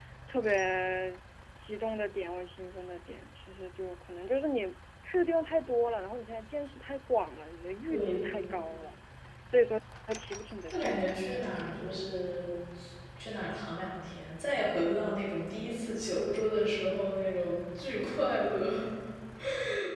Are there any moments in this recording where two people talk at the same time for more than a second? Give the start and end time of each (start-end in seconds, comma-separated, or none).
10.7-12.1